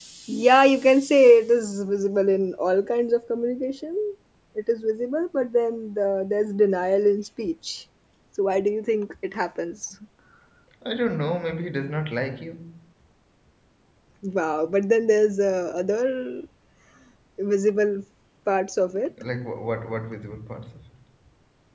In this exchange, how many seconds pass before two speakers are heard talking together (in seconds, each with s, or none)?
none